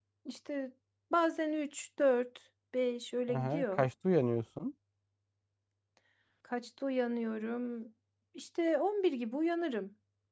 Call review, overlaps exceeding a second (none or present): none